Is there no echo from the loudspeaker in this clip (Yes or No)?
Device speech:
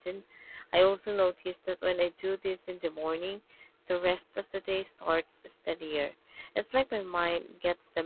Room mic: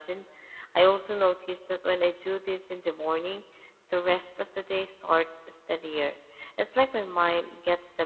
No